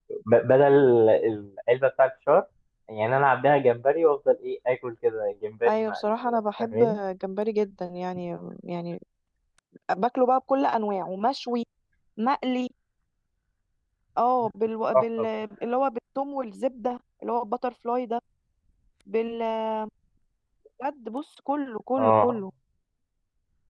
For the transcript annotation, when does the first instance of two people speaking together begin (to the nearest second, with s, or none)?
6 s